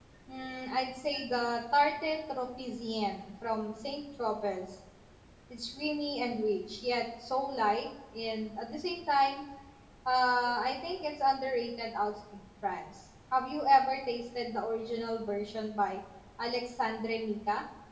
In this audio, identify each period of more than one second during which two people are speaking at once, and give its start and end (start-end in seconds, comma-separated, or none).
none